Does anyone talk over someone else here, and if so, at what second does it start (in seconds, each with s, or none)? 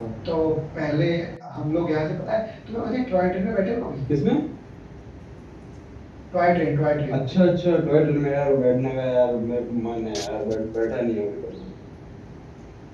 none